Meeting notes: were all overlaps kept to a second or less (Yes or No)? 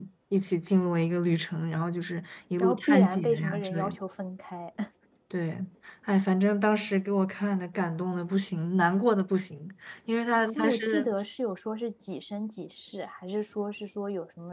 No